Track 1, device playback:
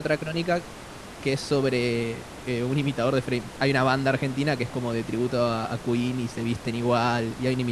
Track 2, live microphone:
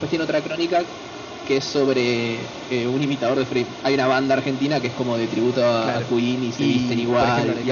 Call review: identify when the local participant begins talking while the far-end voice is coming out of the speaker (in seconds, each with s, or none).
5.8 s